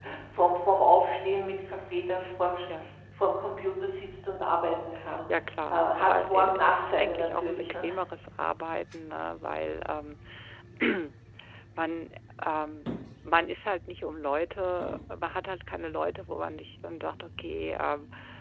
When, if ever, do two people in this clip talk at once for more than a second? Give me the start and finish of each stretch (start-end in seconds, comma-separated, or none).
5.7-7.8